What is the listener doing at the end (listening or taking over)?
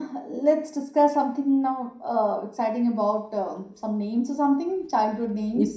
taking over